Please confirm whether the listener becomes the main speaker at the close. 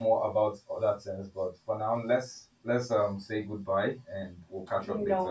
Yes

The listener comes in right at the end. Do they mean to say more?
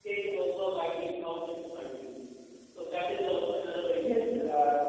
Yes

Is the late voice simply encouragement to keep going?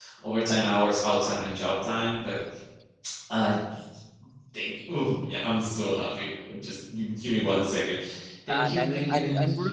No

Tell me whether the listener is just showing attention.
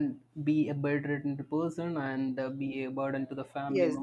No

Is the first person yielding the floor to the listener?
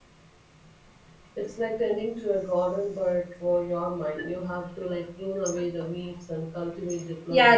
Yes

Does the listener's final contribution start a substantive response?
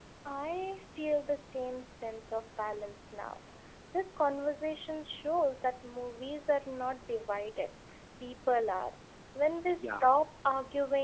No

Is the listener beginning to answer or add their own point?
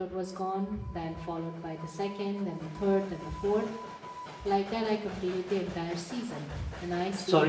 Yes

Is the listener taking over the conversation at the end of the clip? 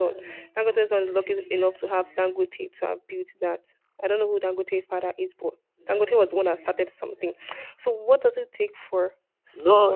Yes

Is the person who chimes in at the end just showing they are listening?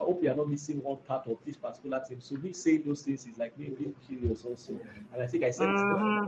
Yes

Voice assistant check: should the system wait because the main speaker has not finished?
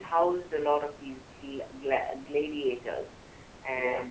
Yes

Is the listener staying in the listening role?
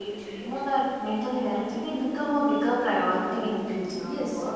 No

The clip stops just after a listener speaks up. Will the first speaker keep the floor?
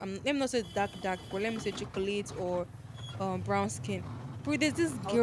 Yes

